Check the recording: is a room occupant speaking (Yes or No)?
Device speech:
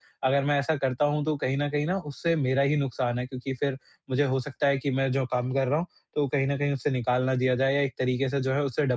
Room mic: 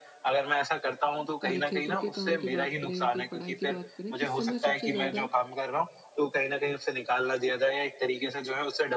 Yes